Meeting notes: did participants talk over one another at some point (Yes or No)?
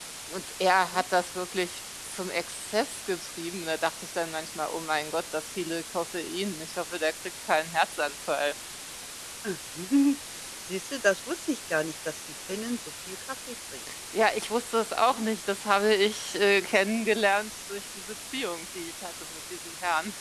No